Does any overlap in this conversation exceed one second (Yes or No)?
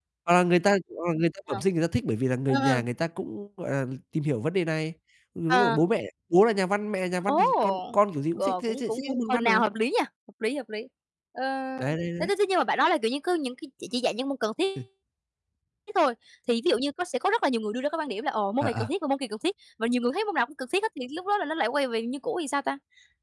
Yes